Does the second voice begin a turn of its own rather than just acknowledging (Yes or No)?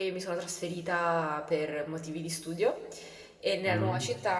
No